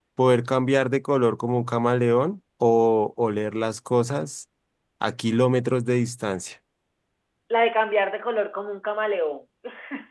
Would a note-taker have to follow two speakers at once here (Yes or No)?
No